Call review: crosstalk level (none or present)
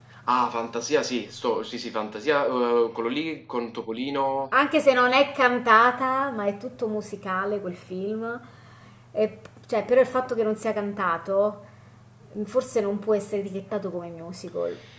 none